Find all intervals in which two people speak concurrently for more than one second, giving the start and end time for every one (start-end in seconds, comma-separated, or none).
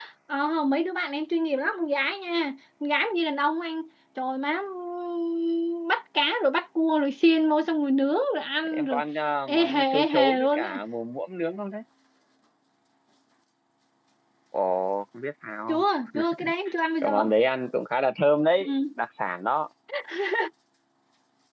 9.5-10.7